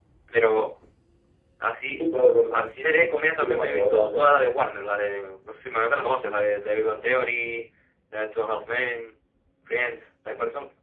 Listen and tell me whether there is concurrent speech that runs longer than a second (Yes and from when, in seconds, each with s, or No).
Yes, from 2.5 s